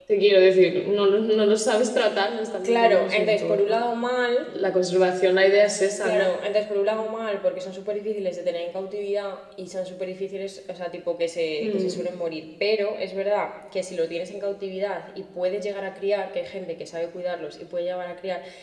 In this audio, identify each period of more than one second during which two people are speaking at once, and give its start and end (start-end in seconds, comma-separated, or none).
2.6-3.8